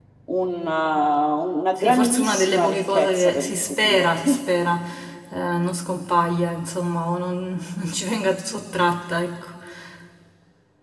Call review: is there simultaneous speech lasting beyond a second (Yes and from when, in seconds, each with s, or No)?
Yes, from 1.8 s